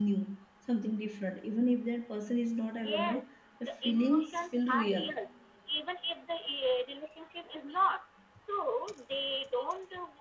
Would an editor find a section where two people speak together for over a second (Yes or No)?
Yes